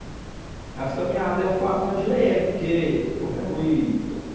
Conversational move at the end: listening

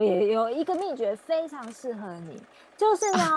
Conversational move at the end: listening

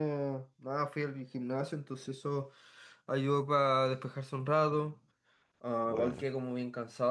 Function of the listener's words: listening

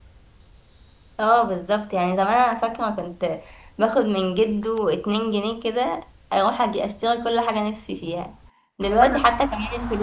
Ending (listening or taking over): listening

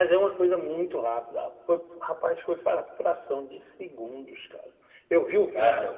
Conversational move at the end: listening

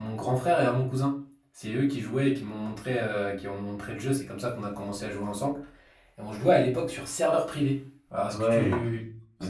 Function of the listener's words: taking over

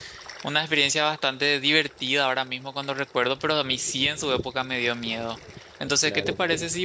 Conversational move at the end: listening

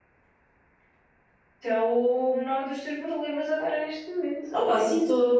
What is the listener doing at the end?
taking over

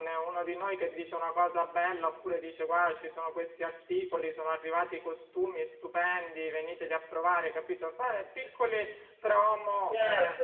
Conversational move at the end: taking over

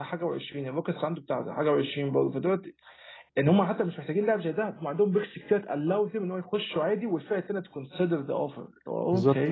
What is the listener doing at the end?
taking over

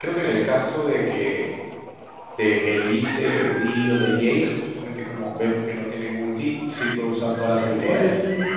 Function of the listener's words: taking over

